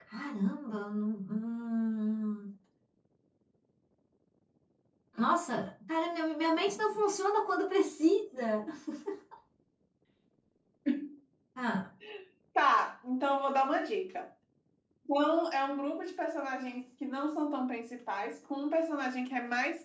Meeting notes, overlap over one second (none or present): none